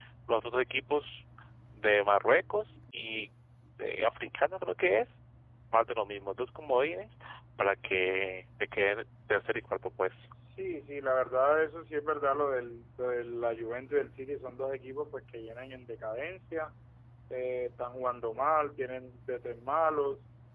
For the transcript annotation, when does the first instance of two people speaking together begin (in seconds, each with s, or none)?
none